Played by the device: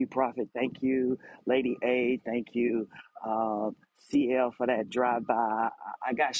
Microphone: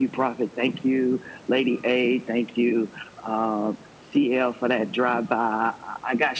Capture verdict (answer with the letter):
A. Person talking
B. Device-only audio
B